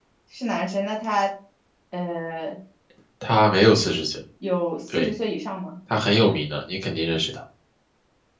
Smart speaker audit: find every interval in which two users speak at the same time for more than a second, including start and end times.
none

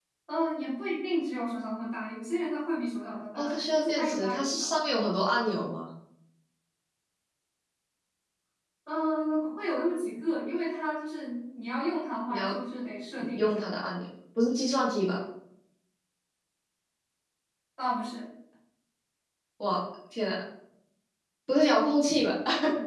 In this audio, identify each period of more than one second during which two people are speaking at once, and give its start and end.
3.4-4.8

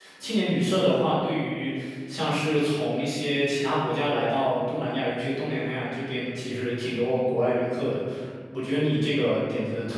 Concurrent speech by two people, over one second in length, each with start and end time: none

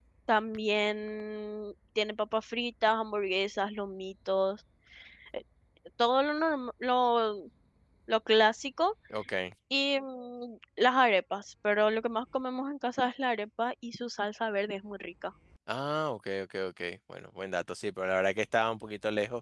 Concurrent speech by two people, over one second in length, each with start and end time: none

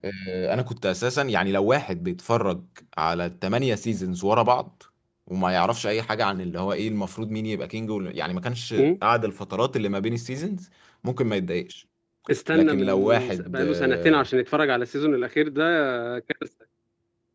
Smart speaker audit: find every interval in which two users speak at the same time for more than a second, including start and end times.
12.5-14.3

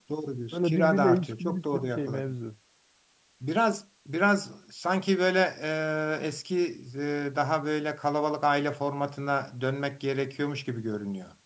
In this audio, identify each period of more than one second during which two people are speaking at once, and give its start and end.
0.5-2.3

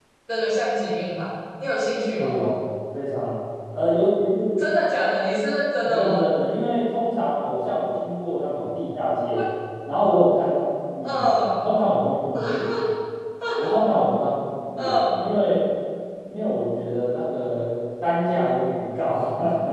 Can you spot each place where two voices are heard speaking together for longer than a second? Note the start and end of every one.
none

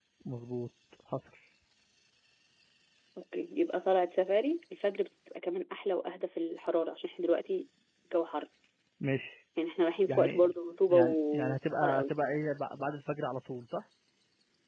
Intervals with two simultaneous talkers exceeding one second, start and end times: 10.9-12.1

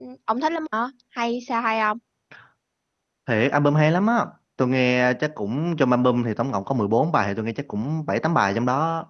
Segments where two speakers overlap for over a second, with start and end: none

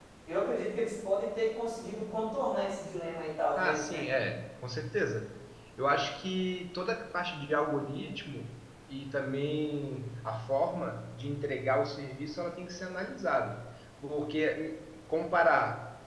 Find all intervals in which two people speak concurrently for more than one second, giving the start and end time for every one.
none

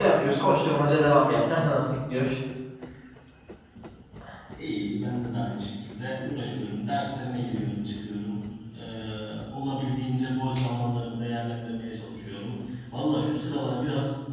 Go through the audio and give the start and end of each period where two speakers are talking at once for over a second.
none

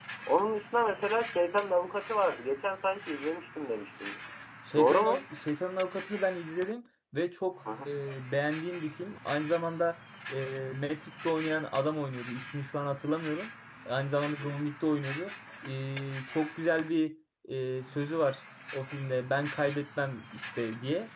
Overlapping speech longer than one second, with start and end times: none

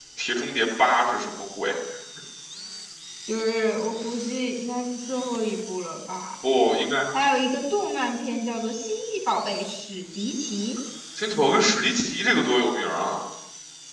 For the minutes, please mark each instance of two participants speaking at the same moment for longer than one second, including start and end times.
none

